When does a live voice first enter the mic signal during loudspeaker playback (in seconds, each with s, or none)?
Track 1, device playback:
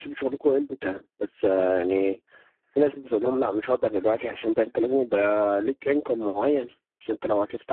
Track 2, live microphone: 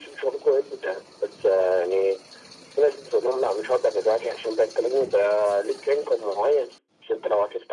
none